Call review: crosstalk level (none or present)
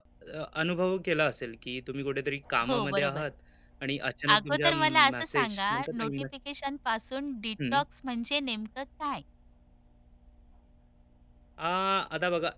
present